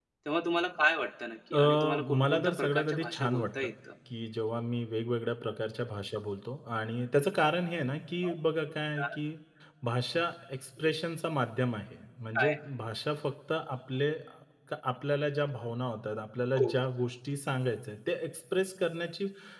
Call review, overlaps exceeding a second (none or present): present